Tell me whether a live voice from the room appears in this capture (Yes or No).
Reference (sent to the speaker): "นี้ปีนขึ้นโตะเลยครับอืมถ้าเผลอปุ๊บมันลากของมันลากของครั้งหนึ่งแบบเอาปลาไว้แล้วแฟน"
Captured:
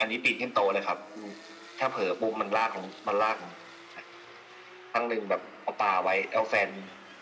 No